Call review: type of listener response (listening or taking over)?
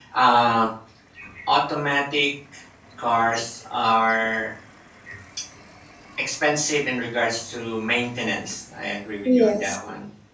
listening